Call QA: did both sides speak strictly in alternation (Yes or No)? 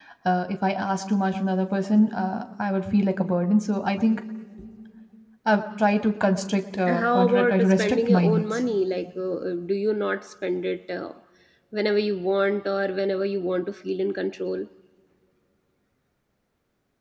No